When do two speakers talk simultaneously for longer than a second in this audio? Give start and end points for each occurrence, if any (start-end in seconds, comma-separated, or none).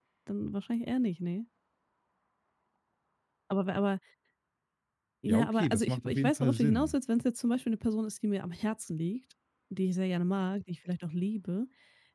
5.3-7.0